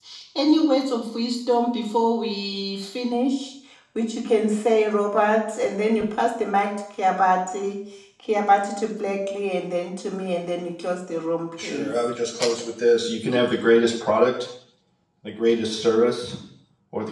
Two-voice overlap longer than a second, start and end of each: none

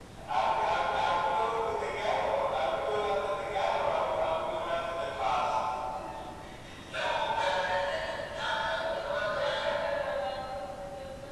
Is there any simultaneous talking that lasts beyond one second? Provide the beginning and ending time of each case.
none

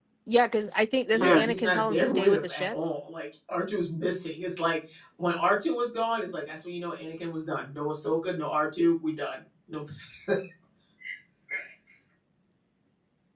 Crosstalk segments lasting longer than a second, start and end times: 1.1-2.8

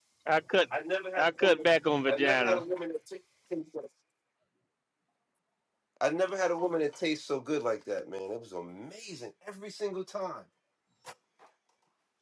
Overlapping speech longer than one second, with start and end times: none

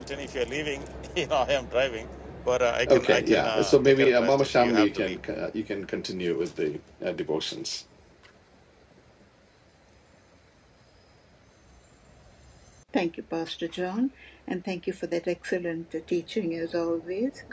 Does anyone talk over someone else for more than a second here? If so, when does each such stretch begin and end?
2.9-5.2

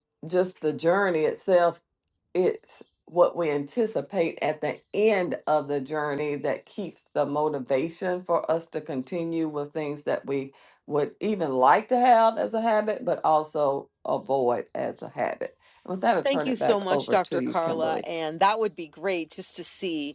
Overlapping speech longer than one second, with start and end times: 16.2-18.0

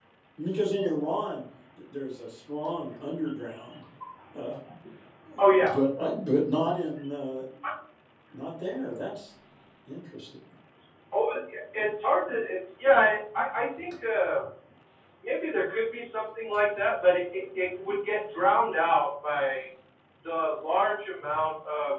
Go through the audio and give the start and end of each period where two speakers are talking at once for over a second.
none

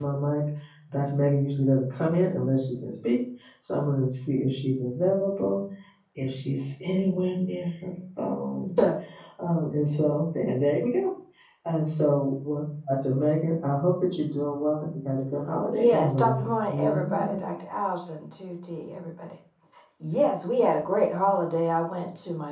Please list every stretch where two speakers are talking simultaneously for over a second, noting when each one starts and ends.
15.7-17.4

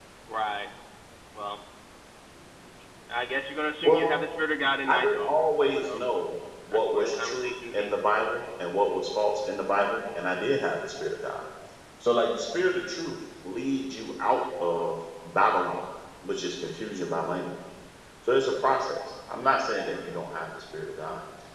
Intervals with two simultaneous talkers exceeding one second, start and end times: 6.7-8.0

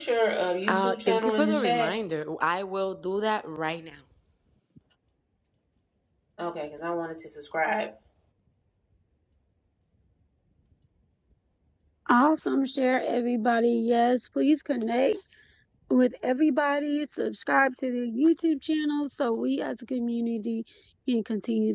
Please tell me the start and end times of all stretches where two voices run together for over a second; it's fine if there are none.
0.7-2.0

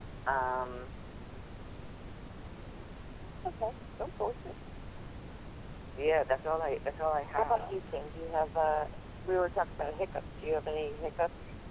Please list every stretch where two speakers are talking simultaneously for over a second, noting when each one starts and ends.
none

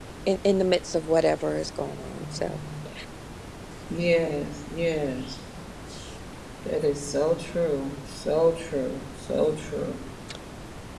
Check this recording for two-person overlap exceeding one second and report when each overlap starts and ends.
none

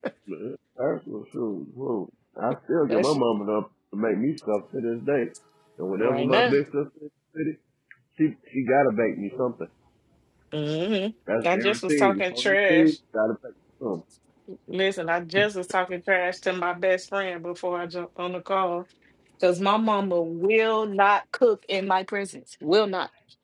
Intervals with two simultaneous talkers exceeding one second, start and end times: 11.4-12.9

